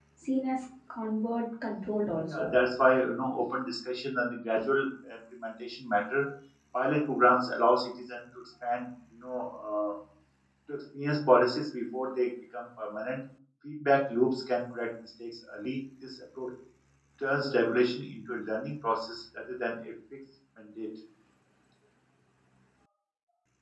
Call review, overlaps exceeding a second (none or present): none